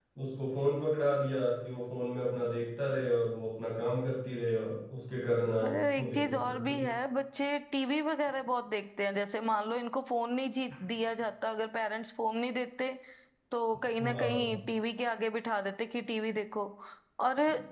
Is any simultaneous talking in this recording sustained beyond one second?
Yes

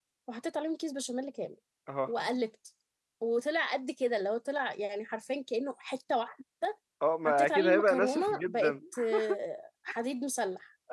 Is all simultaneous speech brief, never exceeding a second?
No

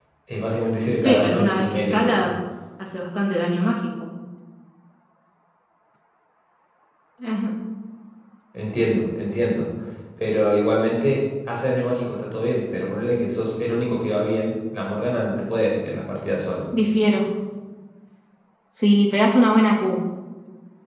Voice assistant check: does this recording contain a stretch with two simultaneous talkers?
Yes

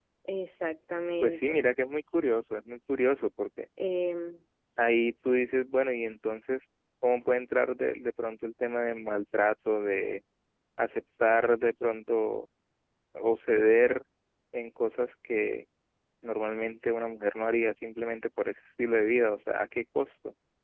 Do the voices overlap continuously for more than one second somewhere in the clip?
No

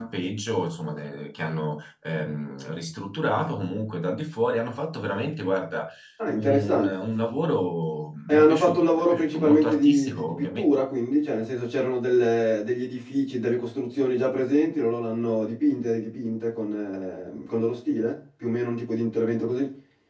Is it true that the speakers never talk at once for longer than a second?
No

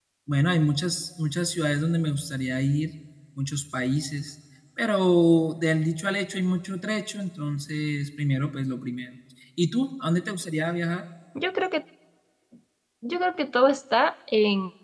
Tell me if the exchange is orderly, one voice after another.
Yes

